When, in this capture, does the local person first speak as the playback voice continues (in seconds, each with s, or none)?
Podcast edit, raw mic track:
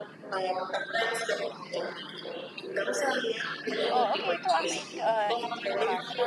3.9 s